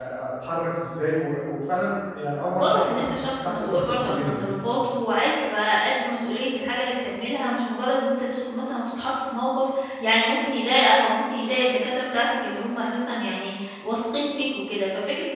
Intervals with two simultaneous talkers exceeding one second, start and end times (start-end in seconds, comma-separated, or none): 2.6-4.5